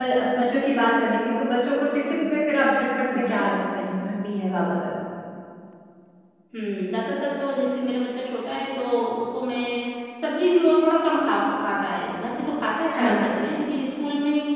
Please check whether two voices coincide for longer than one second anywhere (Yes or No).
No